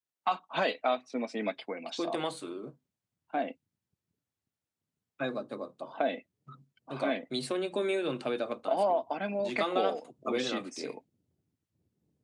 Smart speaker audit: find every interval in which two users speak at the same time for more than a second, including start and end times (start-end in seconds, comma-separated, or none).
9.4-11.0